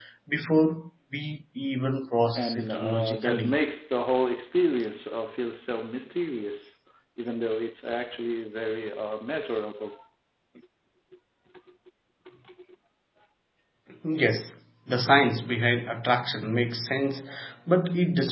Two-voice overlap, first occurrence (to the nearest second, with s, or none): 2 s